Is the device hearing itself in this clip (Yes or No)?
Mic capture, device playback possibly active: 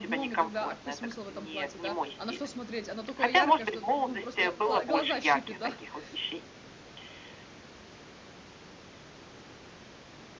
Yes